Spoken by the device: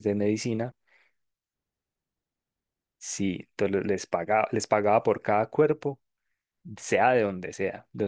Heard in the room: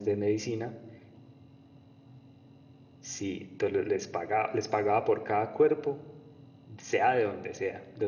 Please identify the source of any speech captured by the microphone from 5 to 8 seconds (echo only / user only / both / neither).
echo only